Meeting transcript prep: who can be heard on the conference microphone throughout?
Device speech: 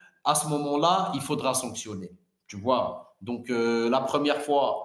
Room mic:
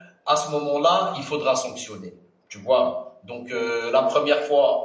echo only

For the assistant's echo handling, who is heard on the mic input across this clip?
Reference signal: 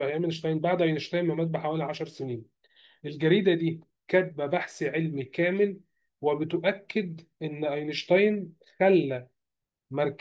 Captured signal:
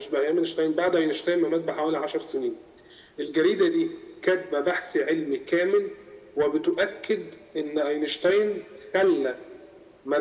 echo only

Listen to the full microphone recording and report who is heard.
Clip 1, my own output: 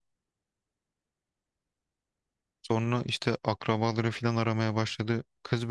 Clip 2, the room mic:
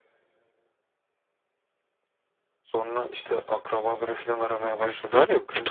both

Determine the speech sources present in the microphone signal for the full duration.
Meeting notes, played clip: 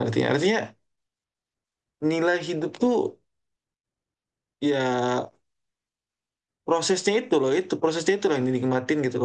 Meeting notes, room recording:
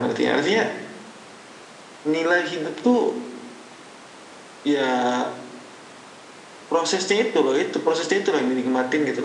echo only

